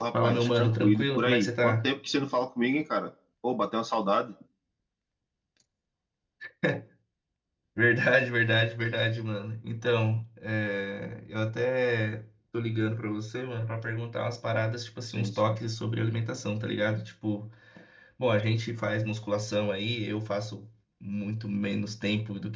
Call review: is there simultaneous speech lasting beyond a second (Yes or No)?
Yes